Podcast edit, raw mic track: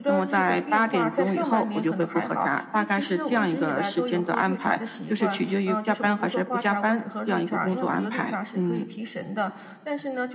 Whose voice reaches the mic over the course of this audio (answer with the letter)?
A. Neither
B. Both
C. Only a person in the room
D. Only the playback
B